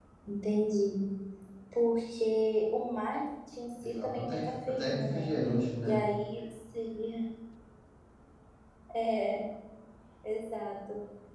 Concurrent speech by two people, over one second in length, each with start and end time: 3.8-5.3

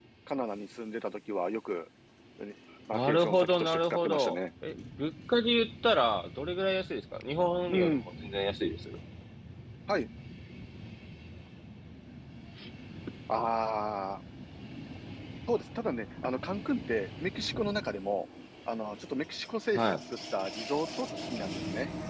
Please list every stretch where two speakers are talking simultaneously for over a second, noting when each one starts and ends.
2.9-4.3

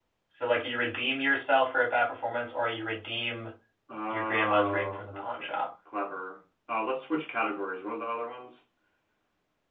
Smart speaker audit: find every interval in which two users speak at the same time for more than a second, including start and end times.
4.1-5.6

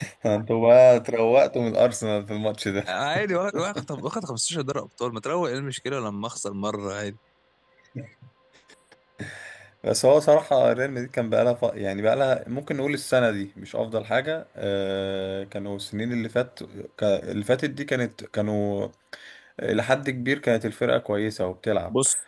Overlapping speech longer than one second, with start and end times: none

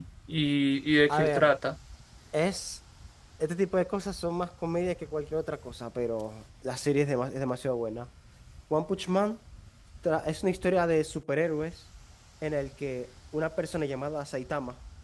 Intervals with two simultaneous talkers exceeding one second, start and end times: none

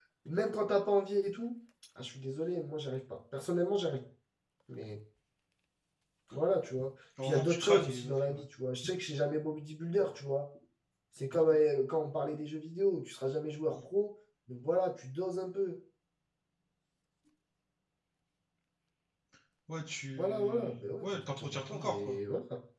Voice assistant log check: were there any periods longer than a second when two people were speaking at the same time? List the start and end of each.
7.2-8.4, 20.2-22.2

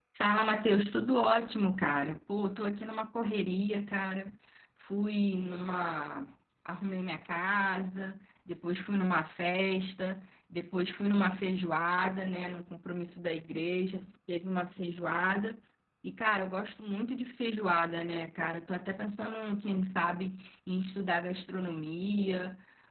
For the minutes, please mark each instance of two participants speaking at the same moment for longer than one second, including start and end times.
none

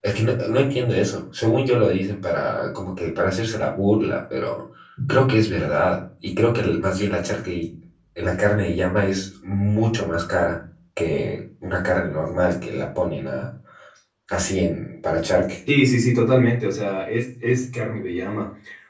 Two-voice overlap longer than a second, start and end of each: none

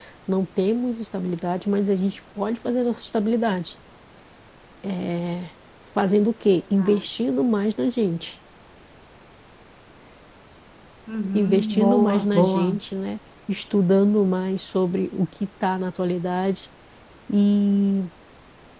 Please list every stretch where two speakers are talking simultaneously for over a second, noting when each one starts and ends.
11.3-12.8

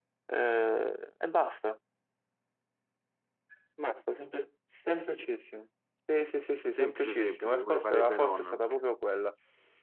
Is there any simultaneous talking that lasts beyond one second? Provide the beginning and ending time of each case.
6.7-8.6

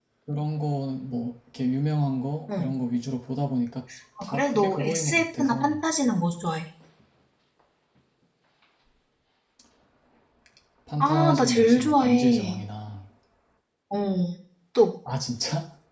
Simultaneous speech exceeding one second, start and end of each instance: 4.2-5.8, 11.0-12.6

